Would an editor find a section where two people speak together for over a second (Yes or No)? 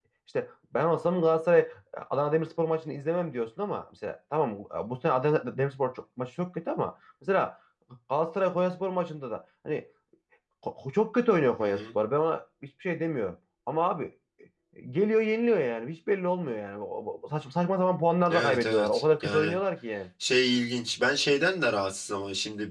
Yes